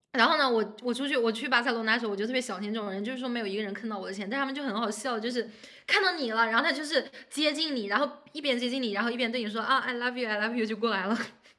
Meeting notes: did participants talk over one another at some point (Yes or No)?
No